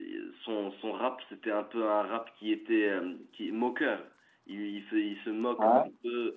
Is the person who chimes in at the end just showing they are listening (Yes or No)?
Yes